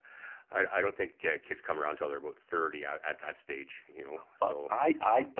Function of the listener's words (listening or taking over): taking over